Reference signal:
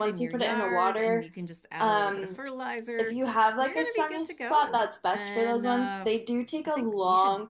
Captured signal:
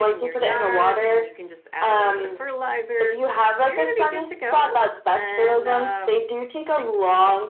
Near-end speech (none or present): none